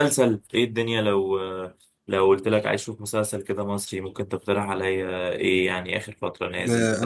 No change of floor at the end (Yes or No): No